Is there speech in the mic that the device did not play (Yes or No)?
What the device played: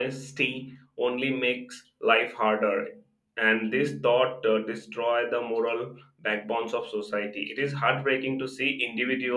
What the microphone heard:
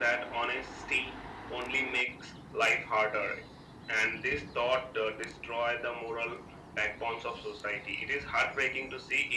No